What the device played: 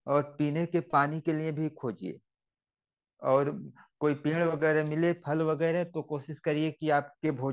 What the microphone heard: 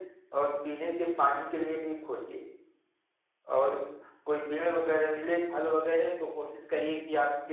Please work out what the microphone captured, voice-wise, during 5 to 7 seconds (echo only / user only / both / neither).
echo only